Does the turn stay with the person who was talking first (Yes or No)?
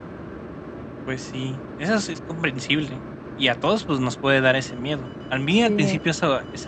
Yes